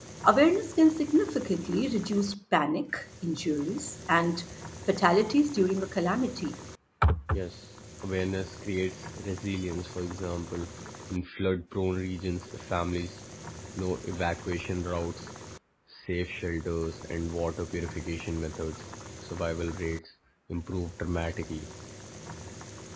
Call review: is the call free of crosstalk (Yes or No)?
Yes